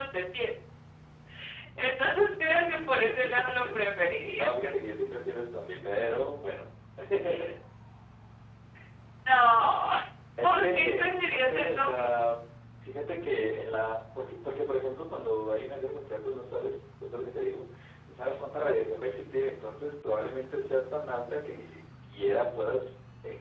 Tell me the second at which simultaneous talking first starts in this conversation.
2.4 s

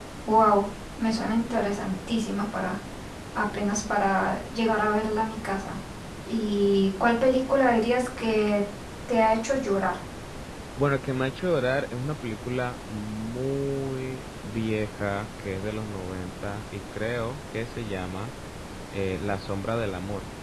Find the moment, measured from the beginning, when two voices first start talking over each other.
none

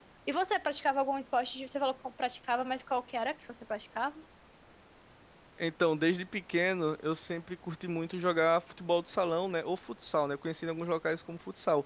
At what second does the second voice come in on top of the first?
none

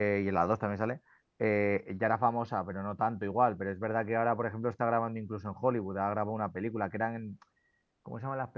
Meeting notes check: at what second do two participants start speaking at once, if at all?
none

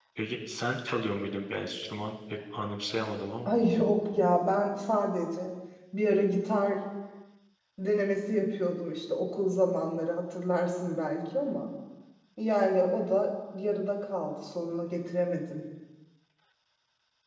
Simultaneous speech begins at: none

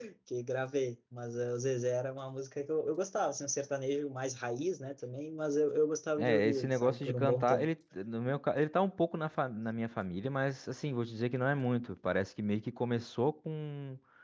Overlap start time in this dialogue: 6.2 s

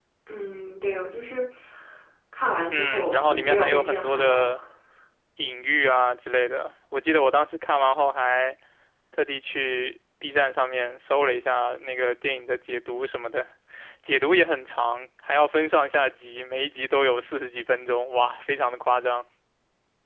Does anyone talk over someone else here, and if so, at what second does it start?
2.7 s

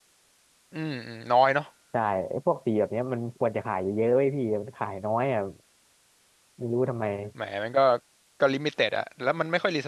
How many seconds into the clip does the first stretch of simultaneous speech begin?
none

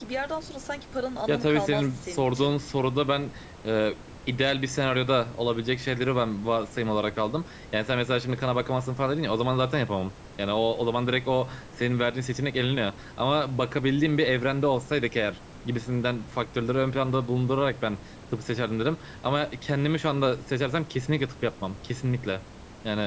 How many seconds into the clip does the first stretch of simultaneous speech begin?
1.3 s

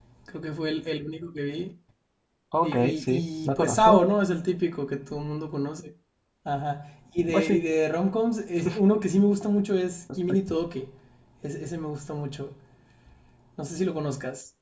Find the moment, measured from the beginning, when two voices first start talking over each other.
2.6 s

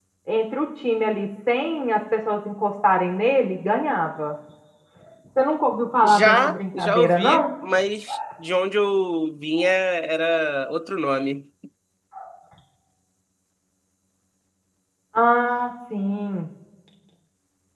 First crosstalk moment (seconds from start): 6.0 s

